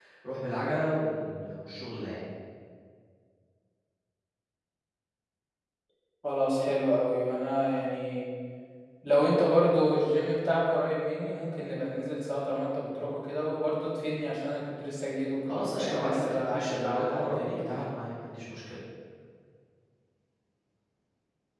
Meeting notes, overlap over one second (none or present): present